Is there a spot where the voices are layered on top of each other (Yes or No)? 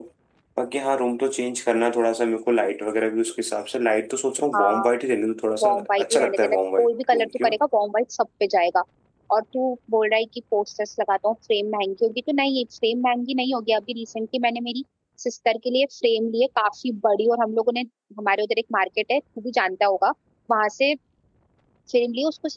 Yes